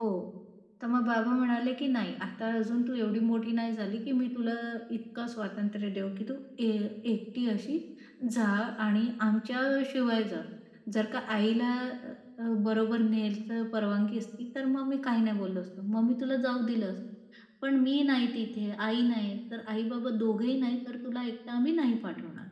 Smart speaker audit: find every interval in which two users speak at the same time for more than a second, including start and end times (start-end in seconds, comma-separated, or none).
none